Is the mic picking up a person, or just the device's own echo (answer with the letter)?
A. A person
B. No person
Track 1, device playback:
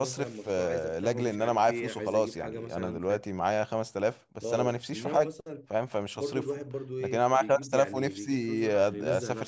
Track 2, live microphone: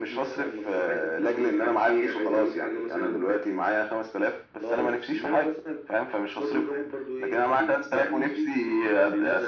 B